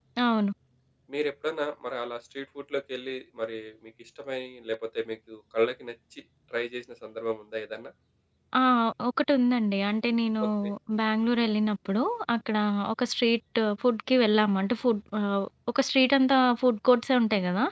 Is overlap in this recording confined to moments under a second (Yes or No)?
Yes